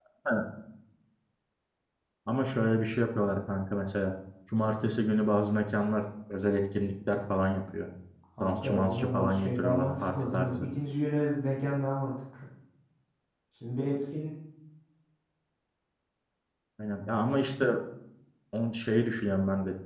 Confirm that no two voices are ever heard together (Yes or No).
No